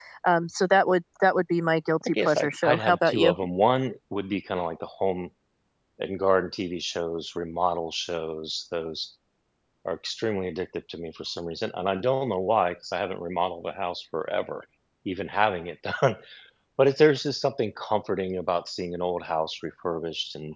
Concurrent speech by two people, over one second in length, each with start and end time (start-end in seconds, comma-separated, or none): 2.0-3.3